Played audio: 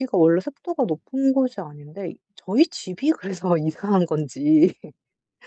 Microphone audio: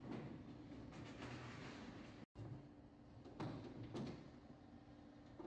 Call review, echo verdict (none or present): none